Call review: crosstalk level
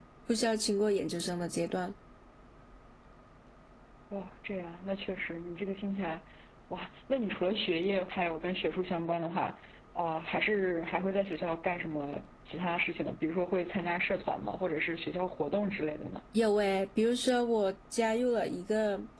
none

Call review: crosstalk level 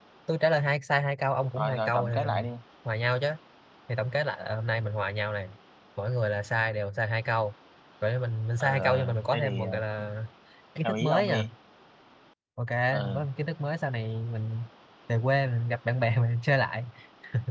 present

